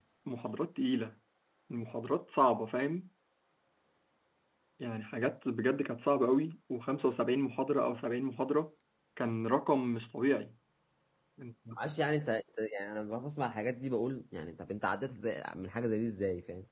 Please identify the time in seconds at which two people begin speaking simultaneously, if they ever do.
none

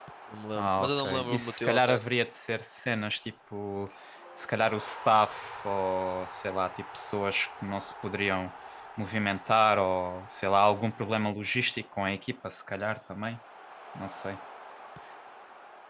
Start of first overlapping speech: 0.6 s

